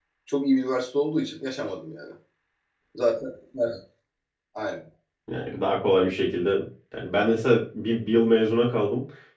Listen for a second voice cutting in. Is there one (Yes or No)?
No